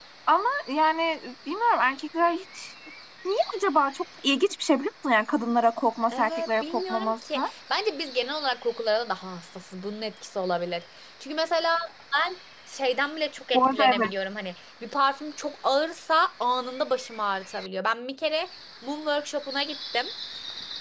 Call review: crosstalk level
present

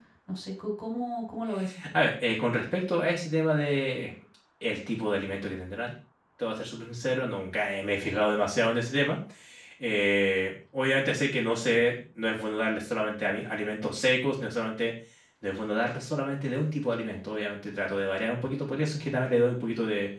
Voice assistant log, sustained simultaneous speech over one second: none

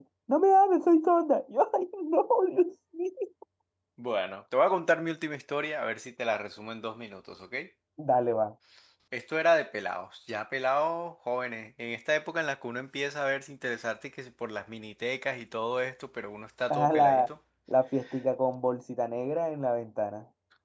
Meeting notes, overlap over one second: none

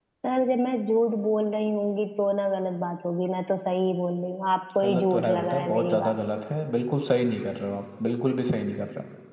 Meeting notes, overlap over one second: present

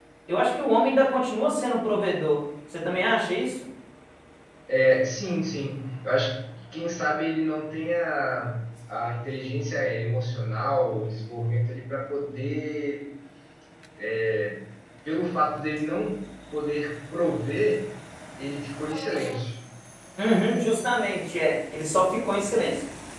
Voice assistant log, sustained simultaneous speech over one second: none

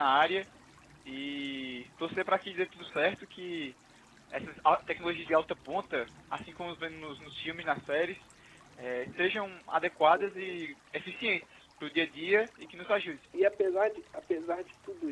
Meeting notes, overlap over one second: none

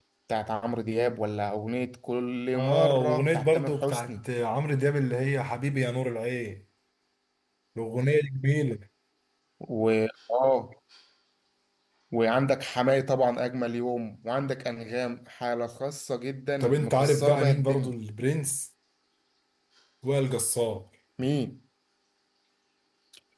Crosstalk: present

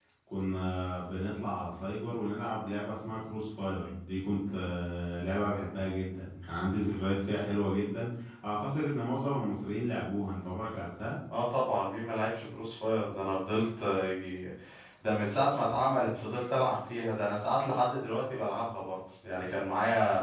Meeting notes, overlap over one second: none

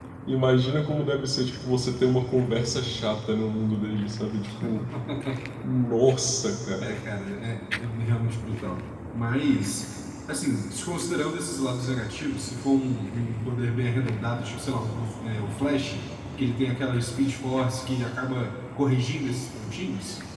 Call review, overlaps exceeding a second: none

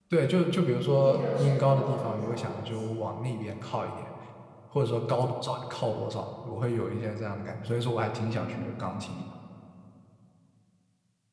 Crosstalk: present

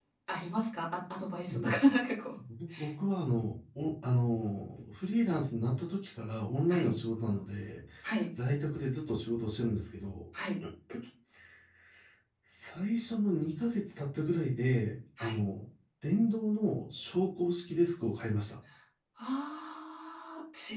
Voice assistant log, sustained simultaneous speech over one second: none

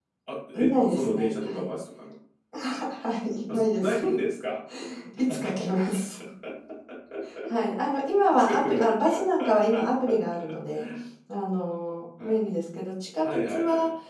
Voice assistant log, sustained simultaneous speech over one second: present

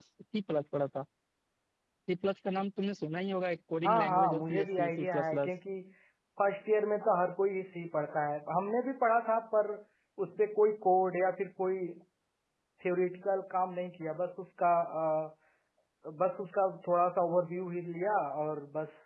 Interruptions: present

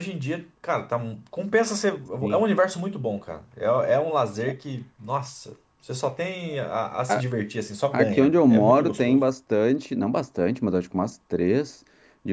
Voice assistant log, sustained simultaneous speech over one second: present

